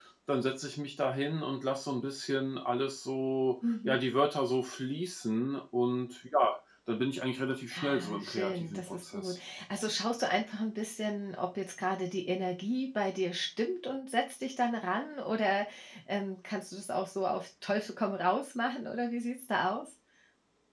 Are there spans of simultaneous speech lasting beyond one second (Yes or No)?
Yes